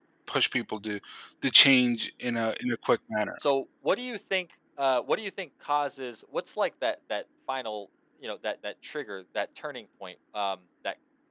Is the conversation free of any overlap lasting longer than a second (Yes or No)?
Yes